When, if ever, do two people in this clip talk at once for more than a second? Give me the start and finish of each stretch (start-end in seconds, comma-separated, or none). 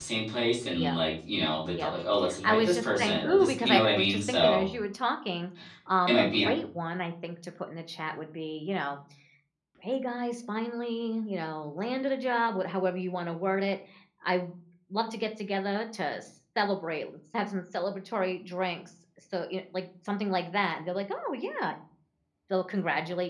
2.4-4.6